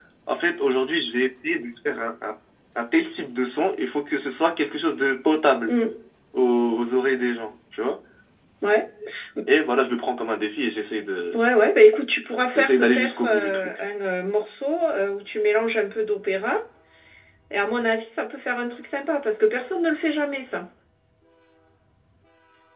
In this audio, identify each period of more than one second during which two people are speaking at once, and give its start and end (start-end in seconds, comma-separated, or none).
12.6-13.8